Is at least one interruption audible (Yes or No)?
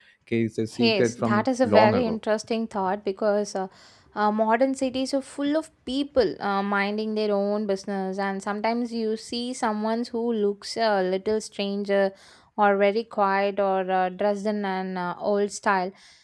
Yes